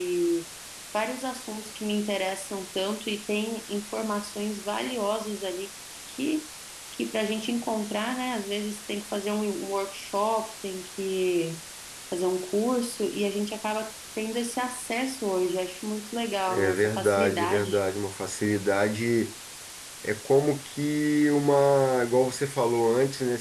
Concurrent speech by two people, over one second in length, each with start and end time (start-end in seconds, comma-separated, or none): 16.5-17.8